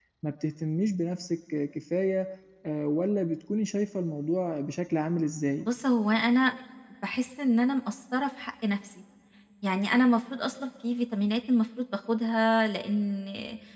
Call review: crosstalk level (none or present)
none